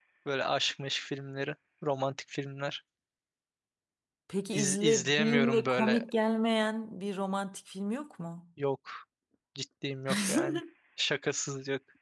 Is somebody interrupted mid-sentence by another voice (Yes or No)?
Yes